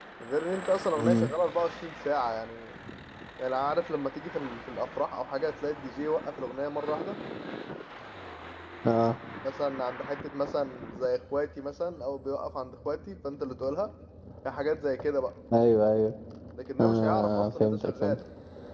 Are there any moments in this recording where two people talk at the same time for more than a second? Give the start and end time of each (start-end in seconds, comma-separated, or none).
16.8-18.2